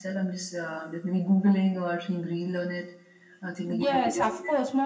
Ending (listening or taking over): taking over